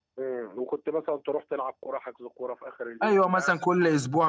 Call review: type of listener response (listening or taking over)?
taking over